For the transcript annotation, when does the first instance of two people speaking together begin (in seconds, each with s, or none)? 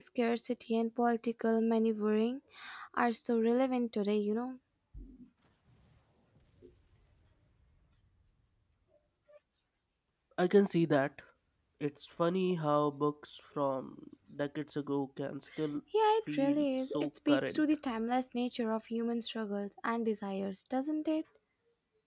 16.3 s